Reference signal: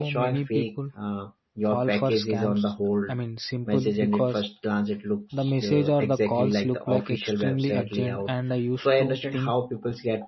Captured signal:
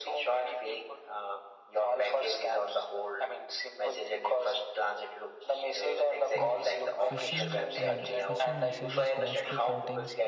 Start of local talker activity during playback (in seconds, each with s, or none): 6.4 s